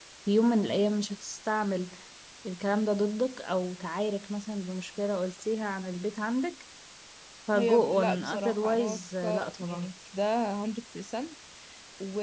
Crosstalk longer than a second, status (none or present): present